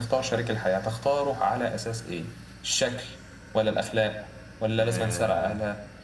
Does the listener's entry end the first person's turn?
No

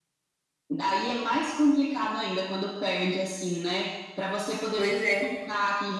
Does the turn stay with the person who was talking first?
Yes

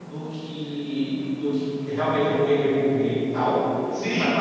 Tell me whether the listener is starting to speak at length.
Yes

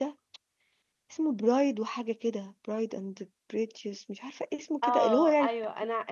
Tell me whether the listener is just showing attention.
No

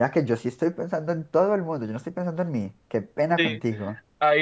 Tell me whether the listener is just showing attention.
No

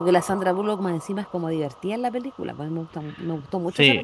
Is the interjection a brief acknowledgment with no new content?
No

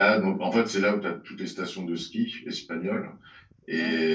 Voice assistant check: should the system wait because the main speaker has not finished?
Yes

